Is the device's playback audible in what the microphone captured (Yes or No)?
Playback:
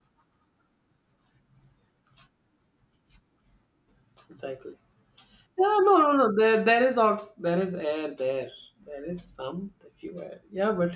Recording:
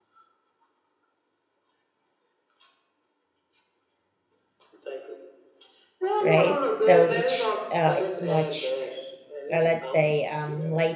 Yes